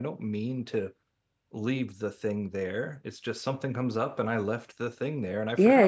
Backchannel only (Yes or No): No